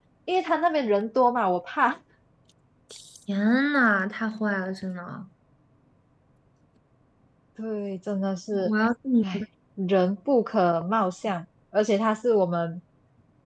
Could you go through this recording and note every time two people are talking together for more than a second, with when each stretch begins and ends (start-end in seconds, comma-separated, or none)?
none